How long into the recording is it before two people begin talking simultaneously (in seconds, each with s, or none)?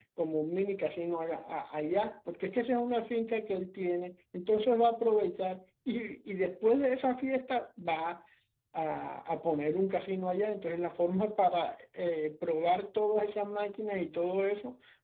none